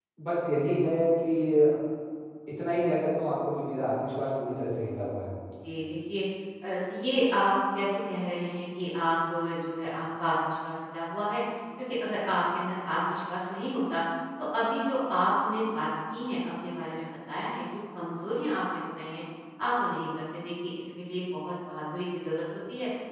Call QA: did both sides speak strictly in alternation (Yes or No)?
Yes